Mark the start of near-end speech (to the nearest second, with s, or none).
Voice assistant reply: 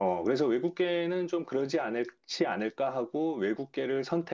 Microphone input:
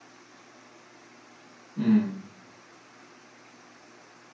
2 s